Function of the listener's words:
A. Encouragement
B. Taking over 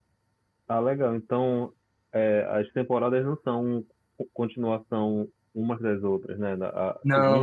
A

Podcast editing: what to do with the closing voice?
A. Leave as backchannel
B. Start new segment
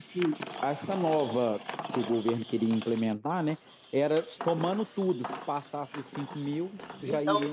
B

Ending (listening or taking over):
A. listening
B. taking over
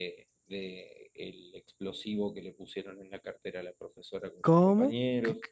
B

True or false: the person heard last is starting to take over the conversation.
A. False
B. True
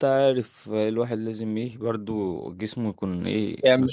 B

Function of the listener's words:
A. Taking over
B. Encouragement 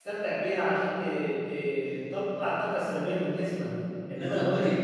B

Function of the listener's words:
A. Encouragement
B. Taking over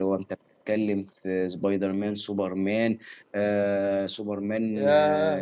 B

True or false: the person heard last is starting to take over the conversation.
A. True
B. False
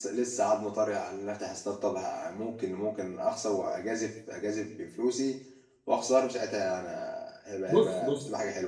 A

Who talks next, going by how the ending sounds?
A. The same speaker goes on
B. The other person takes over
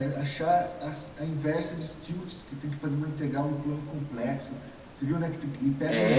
B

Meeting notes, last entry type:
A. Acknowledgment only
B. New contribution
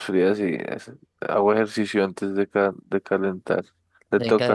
B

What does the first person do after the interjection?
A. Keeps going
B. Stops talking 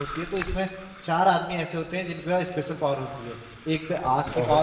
A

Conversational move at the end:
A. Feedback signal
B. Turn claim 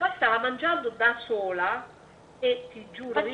B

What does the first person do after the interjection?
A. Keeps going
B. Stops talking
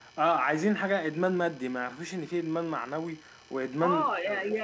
B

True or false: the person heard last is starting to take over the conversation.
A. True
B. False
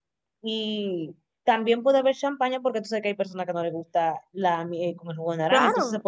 B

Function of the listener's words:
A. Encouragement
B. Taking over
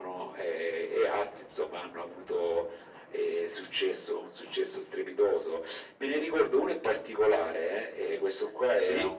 A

